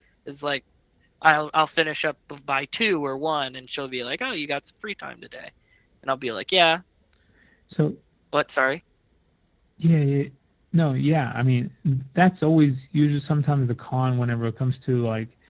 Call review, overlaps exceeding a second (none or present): none